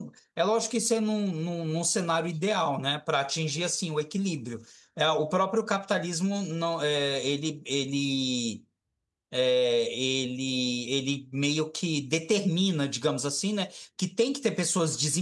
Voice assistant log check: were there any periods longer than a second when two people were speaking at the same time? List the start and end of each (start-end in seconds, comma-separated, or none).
none